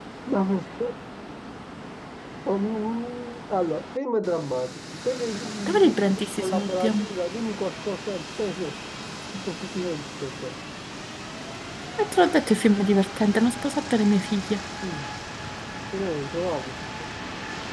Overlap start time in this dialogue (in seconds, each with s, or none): 5.7 s